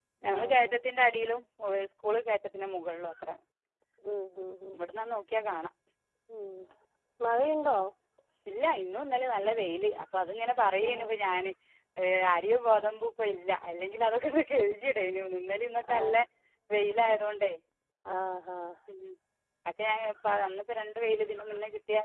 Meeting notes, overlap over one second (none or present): none